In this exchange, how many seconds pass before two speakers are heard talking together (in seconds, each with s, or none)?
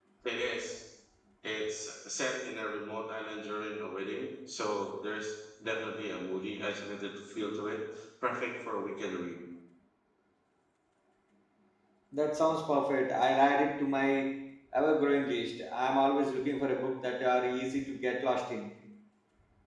none